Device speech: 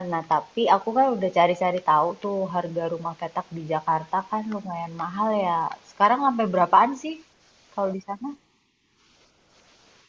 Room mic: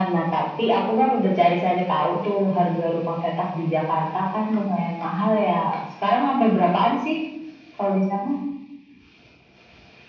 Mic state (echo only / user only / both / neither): echo only